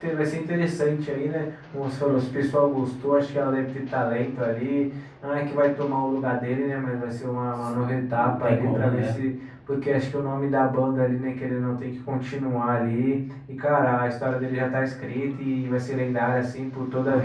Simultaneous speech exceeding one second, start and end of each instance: 7.8-9.2

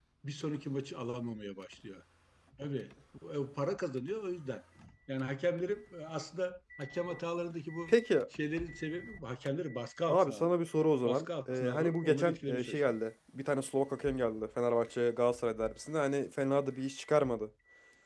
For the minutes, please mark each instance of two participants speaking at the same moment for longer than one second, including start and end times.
11.0-12.8

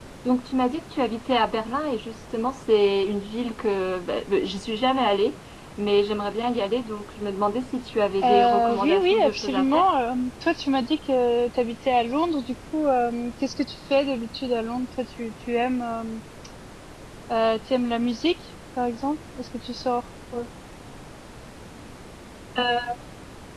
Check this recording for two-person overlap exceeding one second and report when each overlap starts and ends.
8.2-9.8

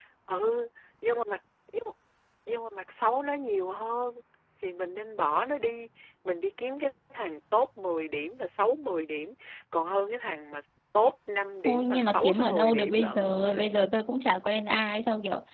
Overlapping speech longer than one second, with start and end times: 11.7-13.3

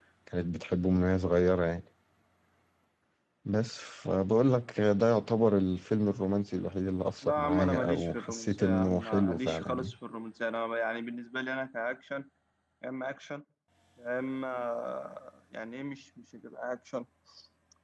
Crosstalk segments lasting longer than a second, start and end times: 7.2-9.9

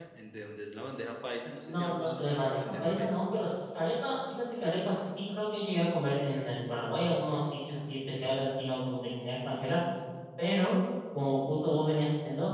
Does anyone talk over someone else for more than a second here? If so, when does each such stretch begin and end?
1.6-3.2

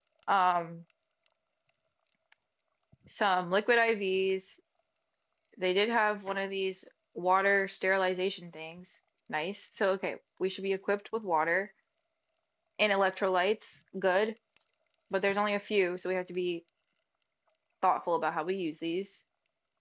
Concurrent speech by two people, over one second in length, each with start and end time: none

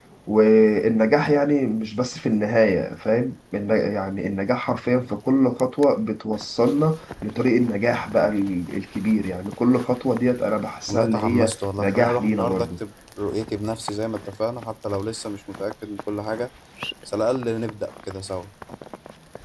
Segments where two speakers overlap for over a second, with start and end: 10.9-12.8

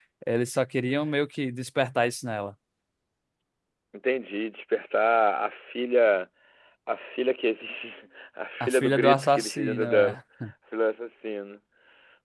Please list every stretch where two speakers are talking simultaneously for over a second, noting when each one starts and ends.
8.6-10.2

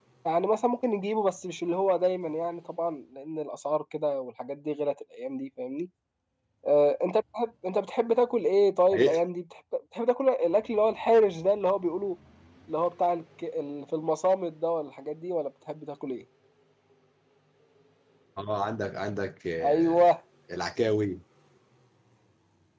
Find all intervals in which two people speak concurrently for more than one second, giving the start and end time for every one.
none

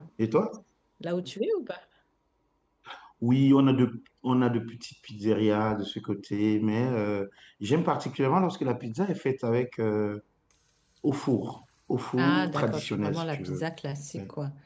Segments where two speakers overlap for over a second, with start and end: 12.2-13.6

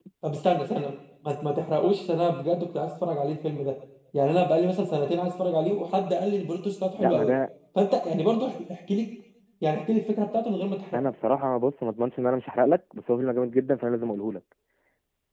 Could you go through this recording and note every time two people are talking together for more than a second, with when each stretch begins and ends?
none

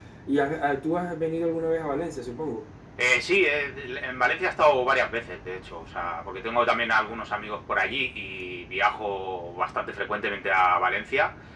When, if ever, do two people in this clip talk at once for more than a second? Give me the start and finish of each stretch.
none

